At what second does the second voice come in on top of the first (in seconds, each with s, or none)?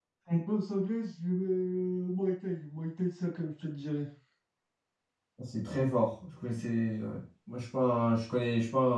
none